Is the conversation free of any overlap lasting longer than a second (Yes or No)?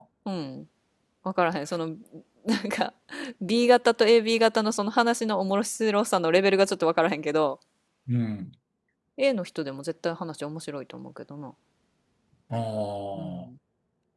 Yes